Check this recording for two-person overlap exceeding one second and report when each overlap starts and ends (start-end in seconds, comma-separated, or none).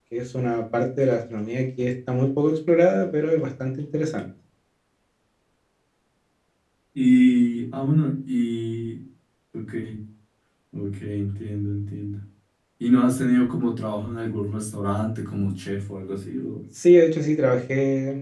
none